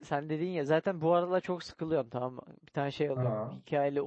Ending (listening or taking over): listening